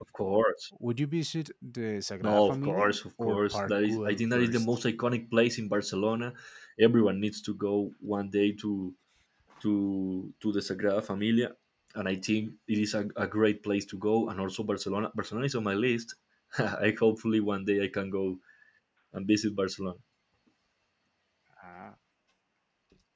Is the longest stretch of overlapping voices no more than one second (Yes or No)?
No